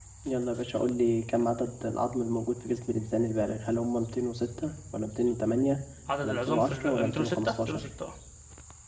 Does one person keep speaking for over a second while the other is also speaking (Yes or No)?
Yes